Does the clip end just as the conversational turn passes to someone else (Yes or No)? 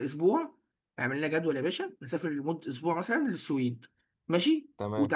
No